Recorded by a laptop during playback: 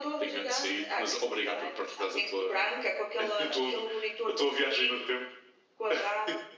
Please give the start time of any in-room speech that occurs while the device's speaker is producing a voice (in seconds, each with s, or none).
none